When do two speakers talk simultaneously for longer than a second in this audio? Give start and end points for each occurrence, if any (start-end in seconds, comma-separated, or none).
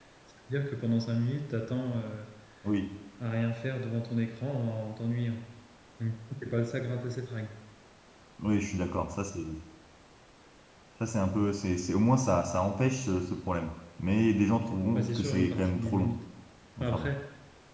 14.6-16.1